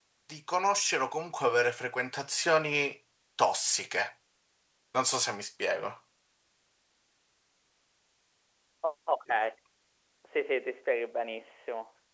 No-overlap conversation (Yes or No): Yes